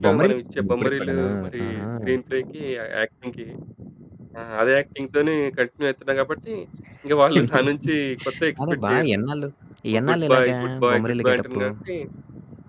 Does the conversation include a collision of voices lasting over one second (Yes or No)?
Yes